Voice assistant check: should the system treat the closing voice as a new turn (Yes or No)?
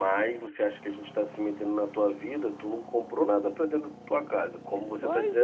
Yes